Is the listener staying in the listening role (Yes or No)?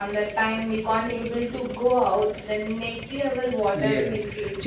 No